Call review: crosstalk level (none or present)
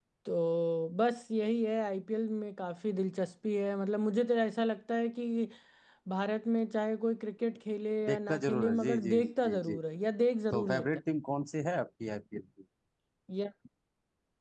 present